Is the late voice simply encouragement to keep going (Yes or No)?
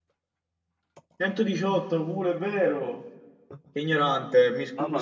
No